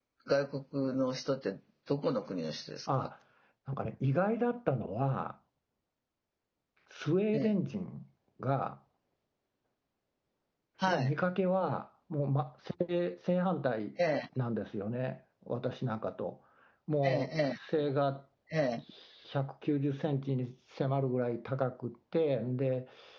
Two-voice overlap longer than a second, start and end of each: none

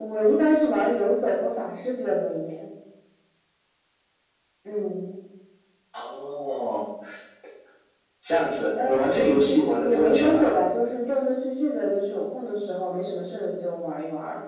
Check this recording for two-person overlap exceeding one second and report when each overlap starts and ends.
8.8-10.5

